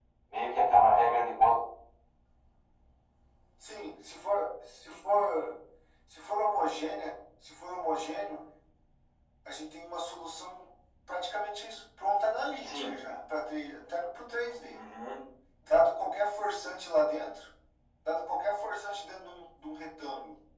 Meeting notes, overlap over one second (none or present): none